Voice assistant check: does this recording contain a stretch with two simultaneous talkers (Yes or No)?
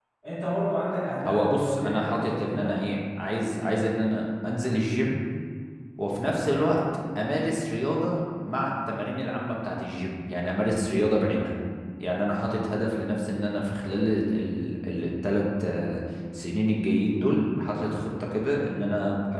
Yes